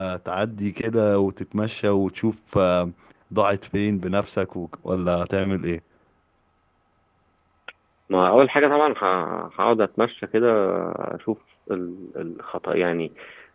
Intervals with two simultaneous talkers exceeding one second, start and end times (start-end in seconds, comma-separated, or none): none